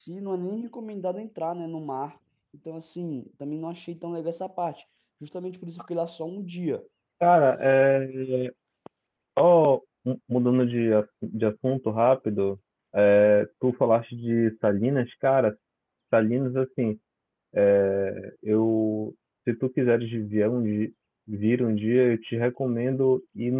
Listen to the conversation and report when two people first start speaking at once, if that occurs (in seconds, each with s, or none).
none